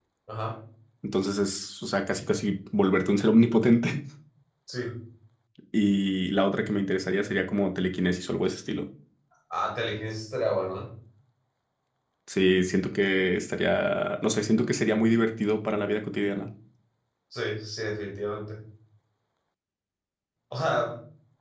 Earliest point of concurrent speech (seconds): none

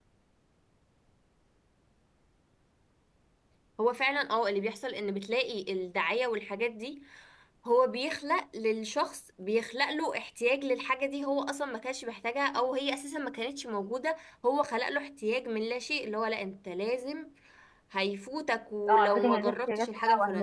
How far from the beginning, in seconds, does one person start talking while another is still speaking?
18.9 s

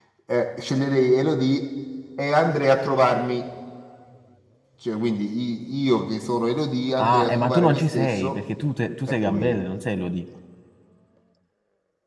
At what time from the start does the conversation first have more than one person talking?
7.0 s

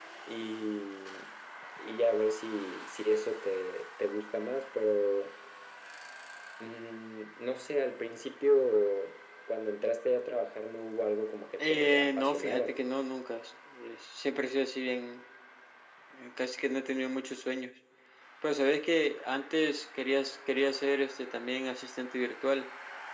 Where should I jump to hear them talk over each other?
11.6 s

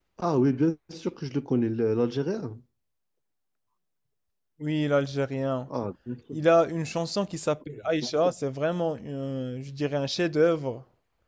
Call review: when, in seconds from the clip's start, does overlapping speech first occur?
none

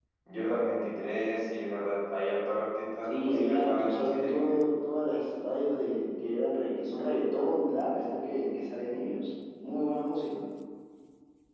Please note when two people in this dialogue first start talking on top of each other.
3.1 s

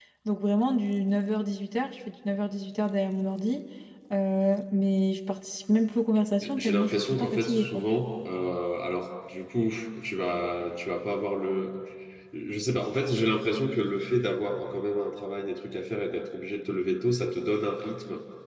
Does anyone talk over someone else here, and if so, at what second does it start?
6.4 s

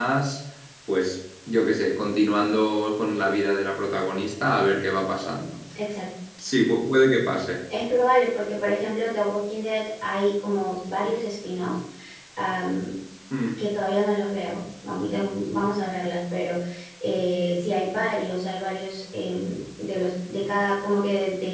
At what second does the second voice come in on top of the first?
none

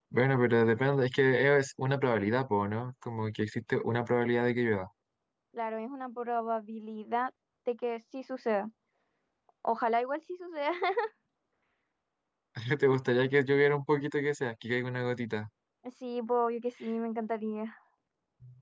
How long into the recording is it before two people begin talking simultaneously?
none

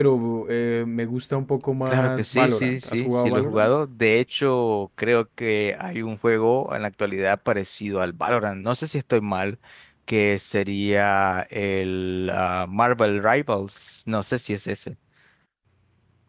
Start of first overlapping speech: 1.9 s

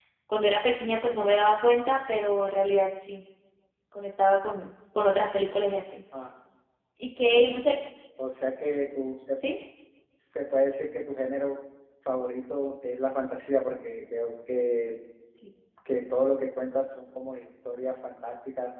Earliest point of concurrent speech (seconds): none

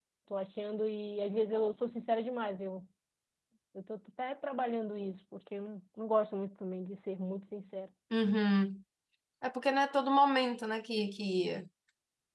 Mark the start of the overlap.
none

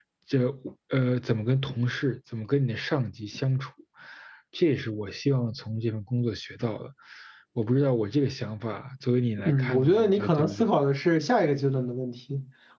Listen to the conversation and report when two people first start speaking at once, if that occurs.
9.4 s

